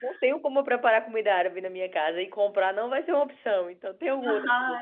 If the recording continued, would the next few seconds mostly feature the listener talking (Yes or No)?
Yes